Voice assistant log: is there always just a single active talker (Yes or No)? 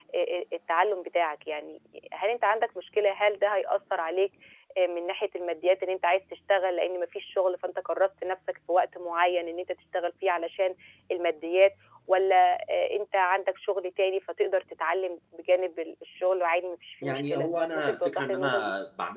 No